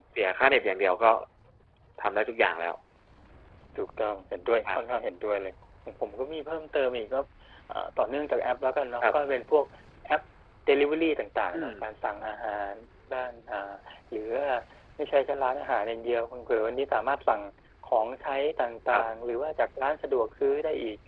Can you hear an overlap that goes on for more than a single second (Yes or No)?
No